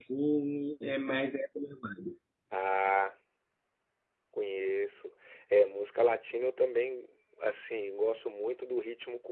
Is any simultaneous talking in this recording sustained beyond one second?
No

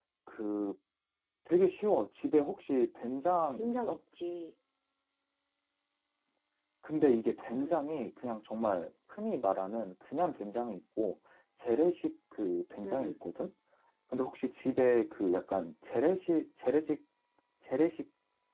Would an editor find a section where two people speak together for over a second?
No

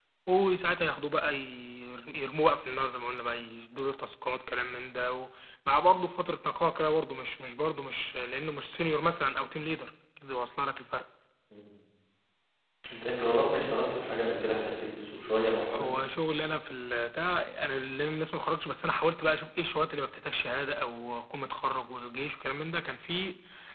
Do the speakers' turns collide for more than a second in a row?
No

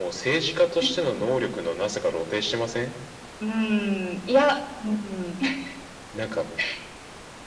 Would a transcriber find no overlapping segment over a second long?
Yes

